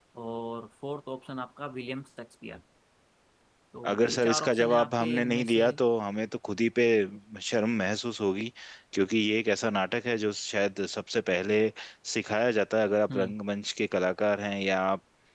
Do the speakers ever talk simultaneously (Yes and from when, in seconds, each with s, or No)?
Yes, from 3.9 s